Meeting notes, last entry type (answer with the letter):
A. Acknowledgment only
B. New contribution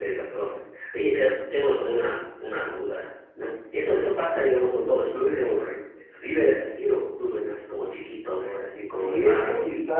B